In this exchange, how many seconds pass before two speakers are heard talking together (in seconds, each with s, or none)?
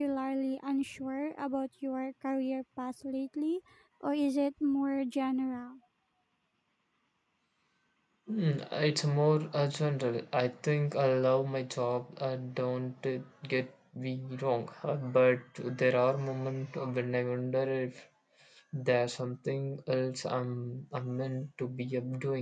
none